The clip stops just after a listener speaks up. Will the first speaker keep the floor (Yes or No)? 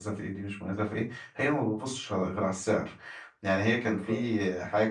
Yes